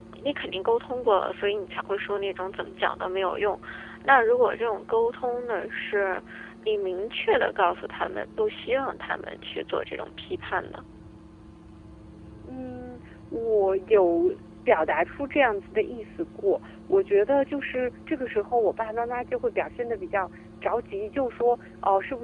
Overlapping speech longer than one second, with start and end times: none

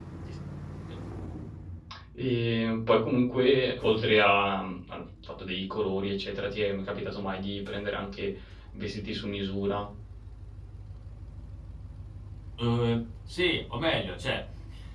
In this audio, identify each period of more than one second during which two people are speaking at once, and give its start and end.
none

